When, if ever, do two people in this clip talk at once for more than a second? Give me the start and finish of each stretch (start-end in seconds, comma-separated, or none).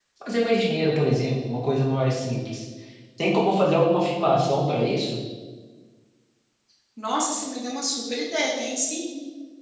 none